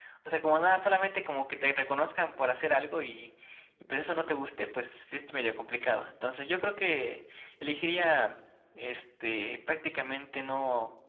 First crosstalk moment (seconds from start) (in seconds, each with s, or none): none